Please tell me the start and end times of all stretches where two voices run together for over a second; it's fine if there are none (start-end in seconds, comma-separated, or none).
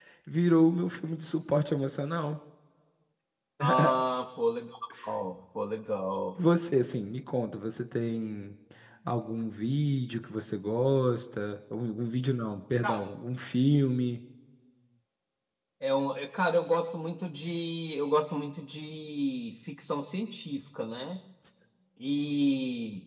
none